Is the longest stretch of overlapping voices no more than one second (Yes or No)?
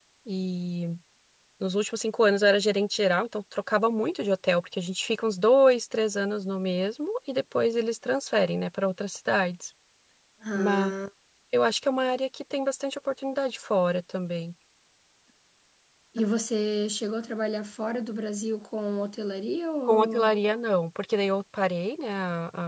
Yes